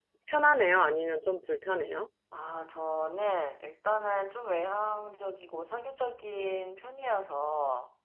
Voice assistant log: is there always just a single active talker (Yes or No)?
Yes